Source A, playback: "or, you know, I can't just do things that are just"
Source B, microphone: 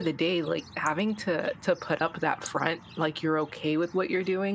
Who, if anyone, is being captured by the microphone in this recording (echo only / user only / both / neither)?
user only